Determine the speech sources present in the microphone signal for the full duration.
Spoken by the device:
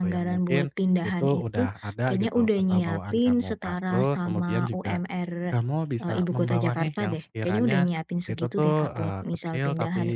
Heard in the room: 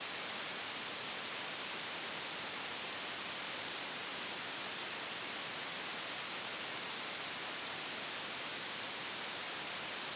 neither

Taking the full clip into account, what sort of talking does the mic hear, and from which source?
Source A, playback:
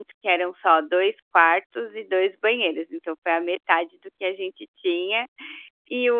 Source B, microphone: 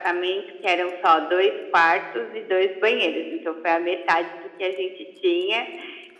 echo only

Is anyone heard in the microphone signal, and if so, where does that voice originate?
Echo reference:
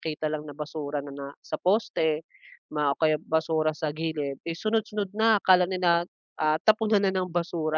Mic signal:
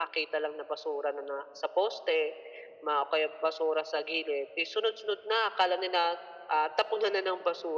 echo only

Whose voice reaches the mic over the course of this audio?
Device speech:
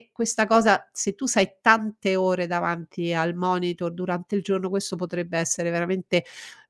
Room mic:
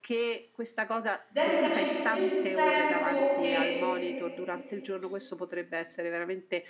both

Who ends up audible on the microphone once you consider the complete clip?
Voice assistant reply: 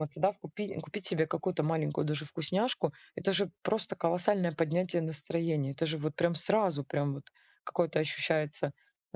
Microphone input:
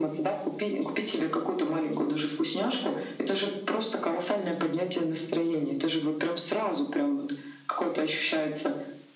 echo only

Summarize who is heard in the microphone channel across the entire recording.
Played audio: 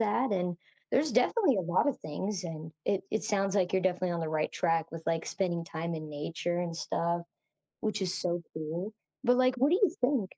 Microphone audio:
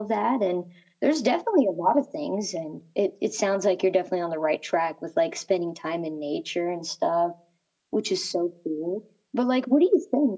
echo only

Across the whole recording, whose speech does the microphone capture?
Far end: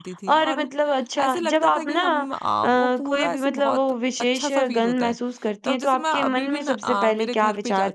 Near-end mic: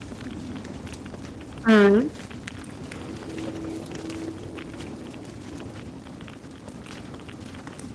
user only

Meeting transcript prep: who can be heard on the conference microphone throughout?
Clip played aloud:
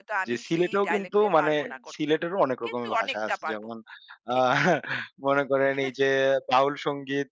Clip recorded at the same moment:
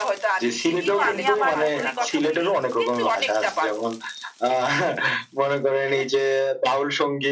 both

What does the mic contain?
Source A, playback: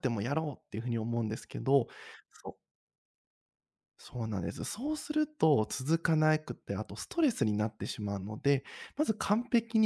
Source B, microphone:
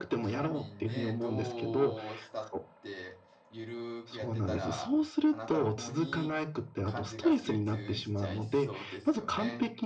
both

